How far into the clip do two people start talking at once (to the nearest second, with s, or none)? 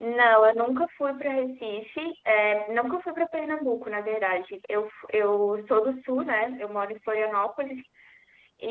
none